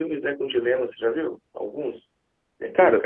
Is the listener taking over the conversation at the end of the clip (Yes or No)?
No